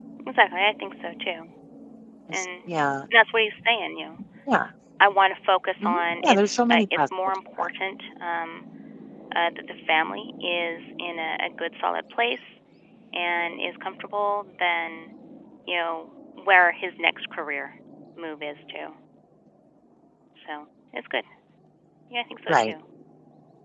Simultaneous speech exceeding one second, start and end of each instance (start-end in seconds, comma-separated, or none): 5.8-7.7